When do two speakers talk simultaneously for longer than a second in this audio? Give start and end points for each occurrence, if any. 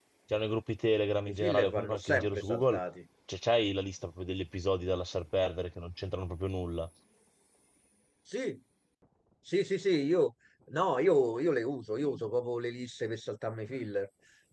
1.3-2.8

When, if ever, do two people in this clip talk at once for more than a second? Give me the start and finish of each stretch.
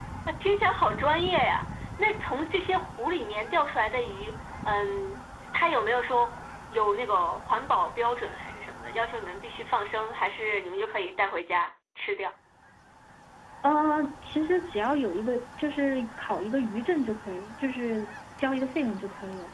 none

